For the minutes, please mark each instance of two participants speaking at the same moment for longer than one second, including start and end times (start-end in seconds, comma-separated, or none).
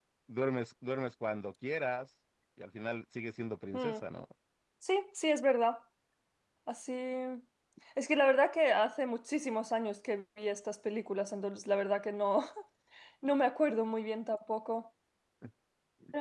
none